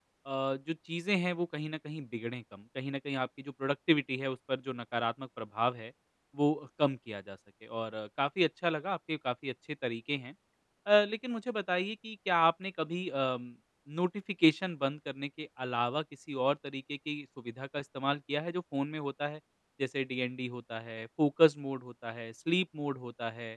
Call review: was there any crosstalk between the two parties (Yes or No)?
No